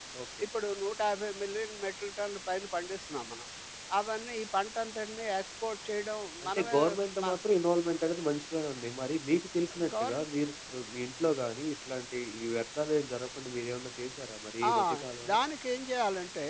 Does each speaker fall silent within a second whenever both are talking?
Yes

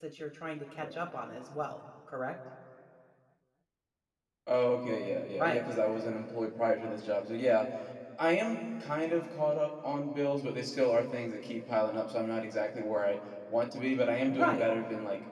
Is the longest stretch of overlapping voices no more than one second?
Yes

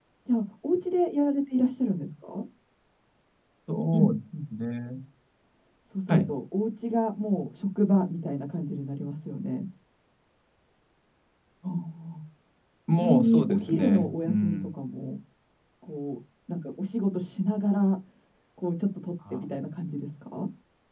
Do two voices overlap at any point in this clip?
Yes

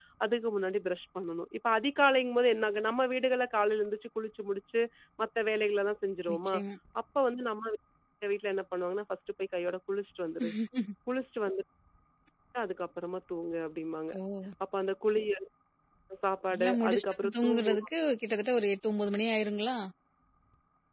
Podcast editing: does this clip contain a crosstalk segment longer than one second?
Yes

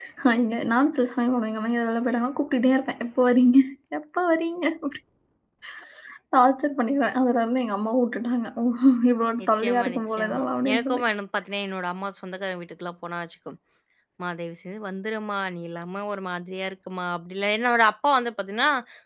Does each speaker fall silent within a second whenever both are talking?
No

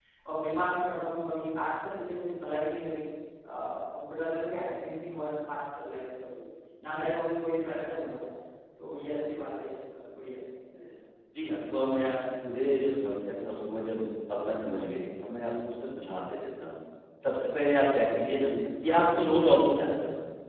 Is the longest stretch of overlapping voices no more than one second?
Yes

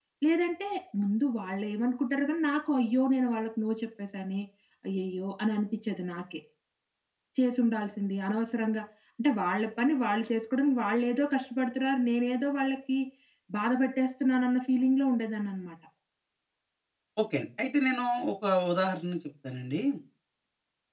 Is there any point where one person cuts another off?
No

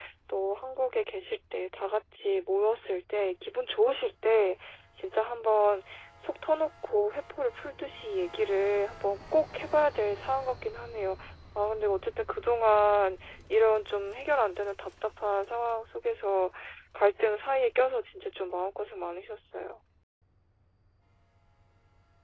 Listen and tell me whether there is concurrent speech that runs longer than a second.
No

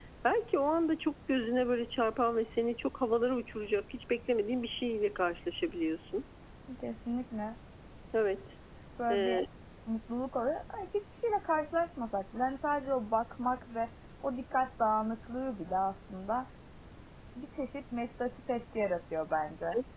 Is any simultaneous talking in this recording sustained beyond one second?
No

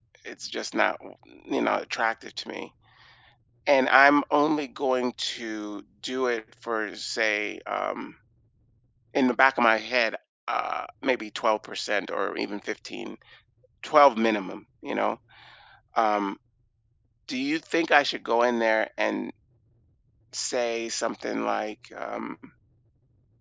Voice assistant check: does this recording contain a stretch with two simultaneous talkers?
No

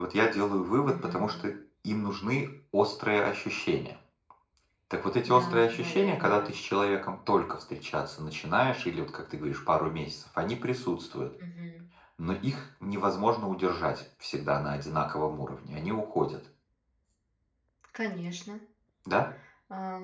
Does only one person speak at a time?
No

